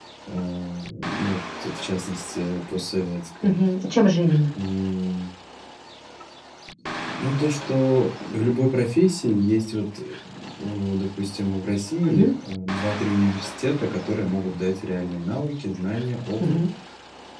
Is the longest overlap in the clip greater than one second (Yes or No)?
No